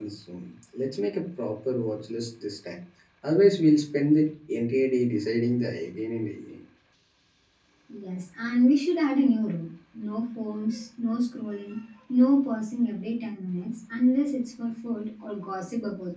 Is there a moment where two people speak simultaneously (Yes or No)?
No